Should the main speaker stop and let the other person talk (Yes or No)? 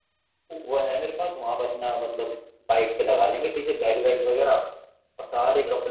No